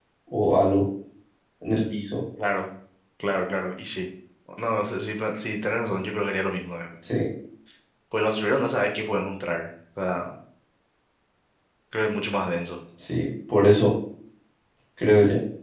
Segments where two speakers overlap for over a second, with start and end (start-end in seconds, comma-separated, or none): none